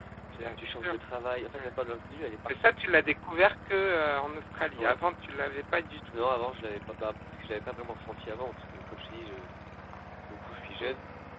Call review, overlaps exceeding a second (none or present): none